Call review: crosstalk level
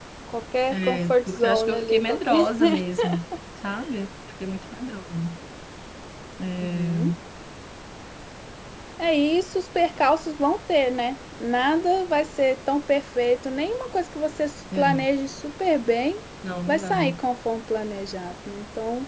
present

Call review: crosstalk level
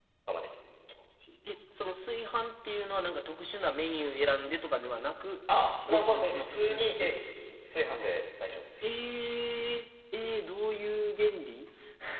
present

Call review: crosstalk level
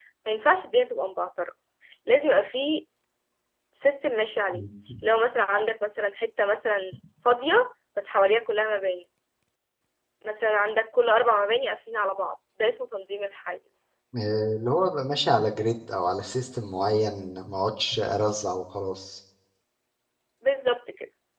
none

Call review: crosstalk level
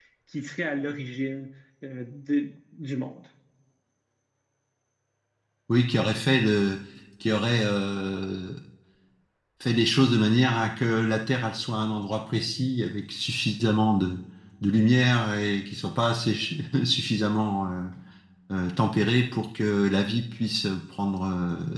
none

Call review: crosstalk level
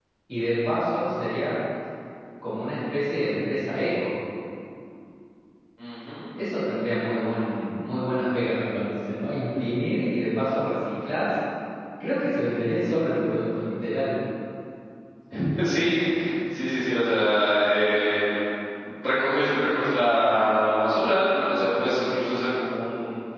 none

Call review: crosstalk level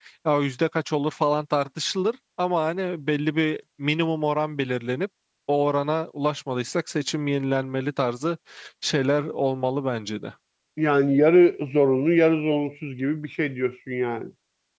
none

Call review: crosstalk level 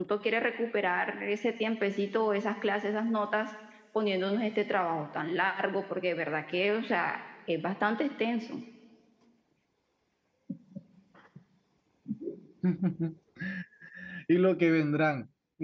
none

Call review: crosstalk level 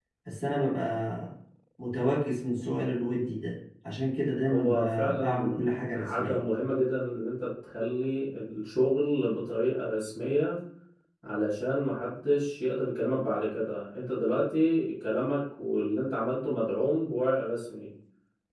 present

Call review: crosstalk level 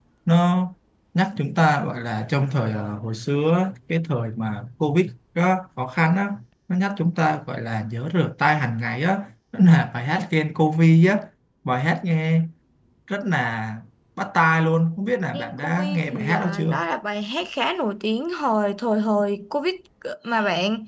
present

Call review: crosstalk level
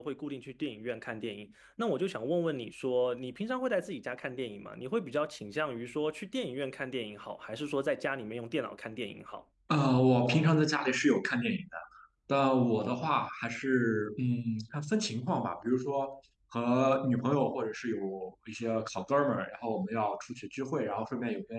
none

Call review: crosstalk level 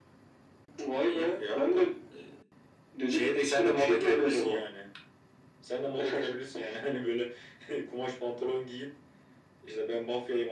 present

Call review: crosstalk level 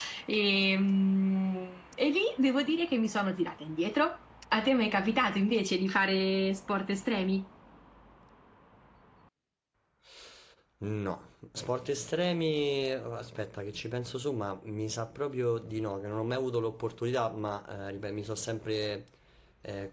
none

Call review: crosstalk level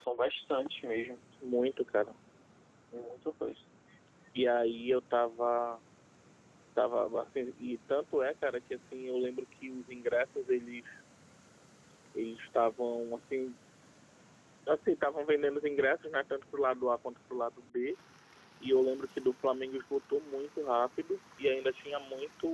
none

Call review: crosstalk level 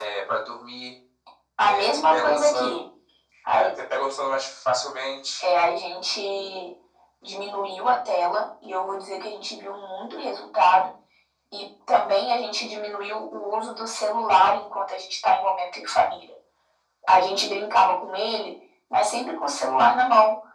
present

